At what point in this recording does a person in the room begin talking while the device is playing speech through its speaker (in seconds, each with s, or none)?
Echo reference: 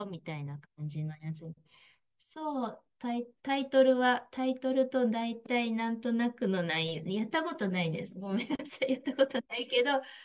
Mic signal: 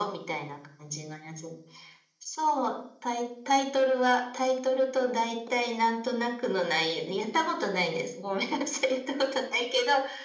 none